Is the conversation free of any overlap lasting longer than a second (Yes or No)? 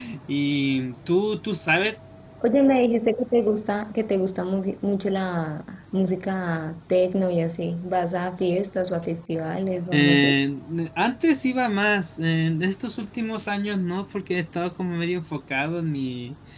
Yes